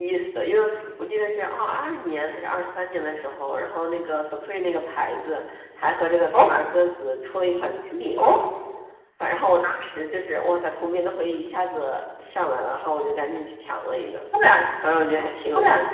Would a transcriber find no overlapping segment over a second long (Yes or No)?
Yes